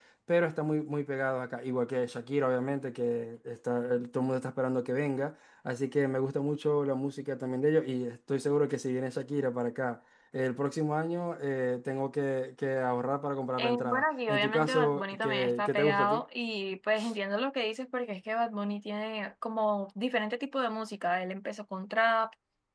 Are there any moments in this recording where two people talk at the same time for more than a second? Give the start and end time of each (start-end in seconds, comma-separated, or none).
13.6-16.2